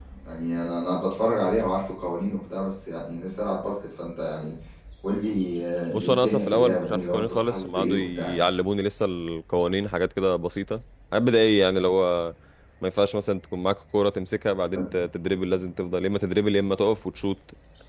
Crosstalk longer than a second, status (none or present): present